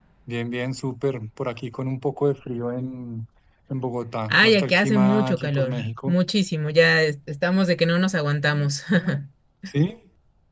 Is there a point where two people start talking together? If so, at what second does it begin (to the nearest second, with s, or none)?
4 s